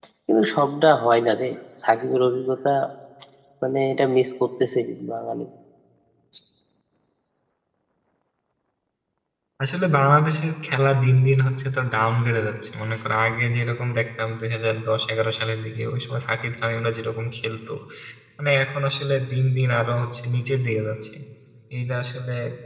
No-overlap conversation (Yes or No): Yes